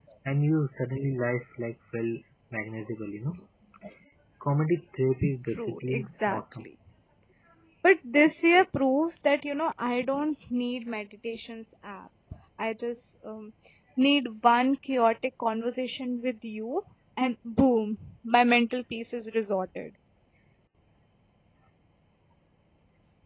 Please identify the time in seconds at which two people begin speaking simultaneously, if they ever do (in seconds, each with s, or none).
5.2 s